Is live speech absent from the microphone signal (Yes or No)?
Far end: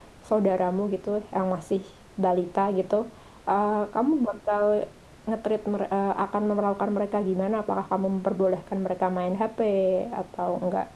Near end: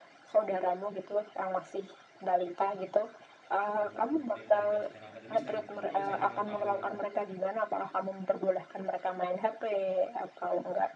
No